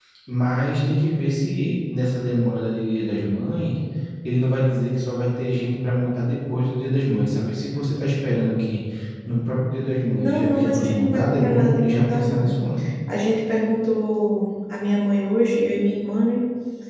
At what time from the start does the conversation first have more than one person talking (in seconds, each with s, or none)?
10.2 s